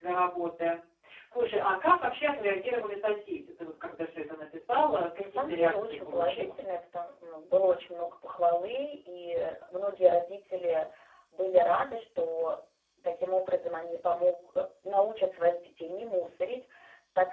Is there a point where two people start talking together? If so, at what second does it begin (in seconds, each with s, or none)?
5.2 s